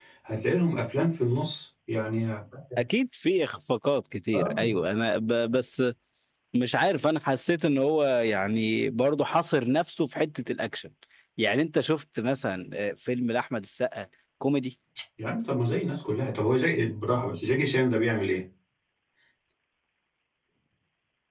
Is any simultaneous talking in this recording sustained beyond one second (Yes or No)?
No